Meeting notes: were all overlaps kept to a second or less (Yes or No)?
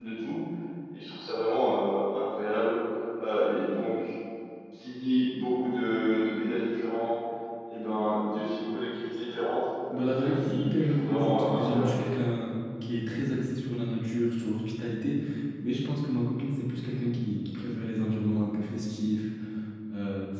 No